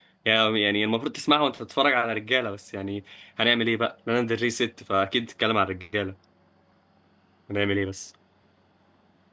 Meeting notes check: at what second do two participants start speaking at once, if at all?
none

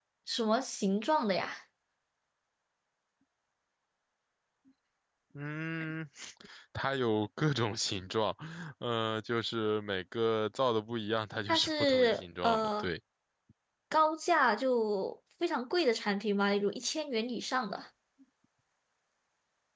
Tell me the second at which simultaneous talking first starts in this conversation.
11 s

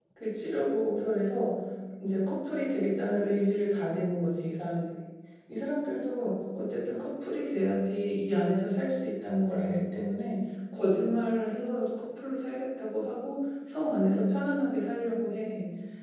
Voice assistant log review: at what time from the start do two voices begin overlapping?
none

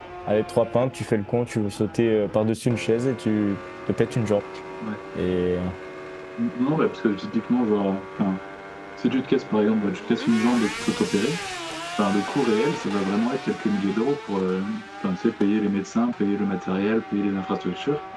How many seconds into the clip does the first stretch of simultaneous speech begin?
none

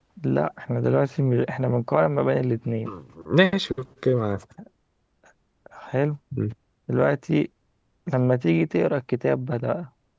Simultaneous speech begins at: none

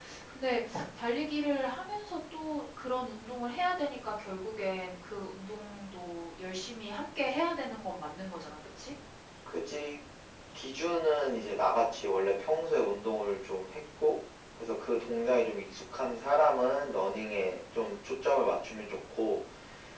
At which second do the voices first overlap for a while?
none

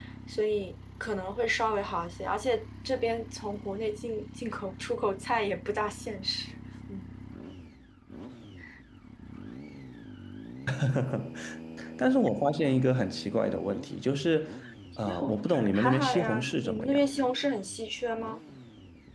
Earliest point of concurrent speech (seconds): 15 s

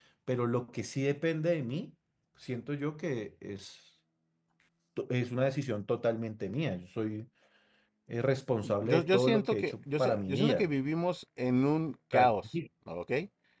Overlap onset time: 9 s

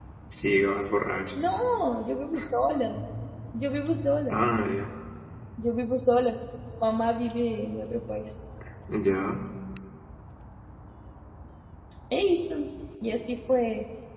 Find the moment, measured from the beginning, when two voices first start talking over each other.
none

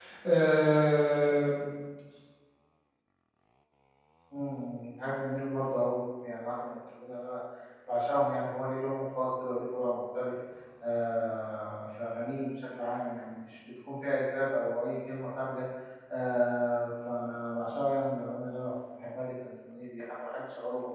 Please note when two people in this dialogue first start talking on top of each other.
none

